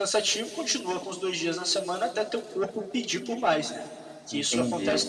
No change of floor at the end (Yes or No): No